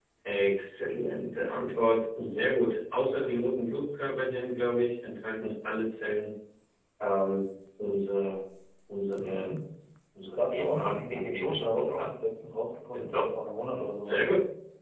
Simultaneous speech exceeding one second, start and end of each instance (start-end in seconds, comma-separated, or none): 10.5-12.1